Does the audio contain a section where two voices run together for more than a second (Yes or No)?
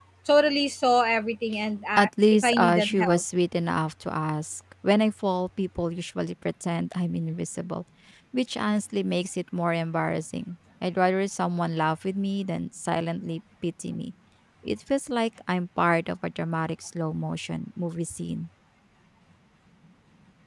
Yes